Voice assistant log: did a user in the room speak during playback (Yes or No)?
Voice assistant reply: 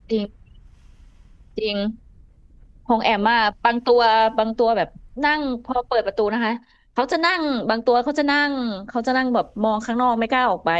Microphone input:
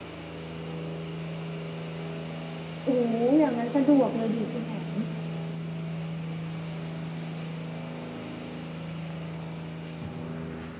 Yes